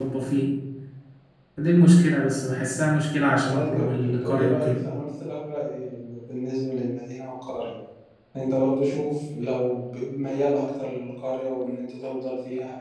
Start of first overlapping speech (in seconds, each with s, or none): 3.4 s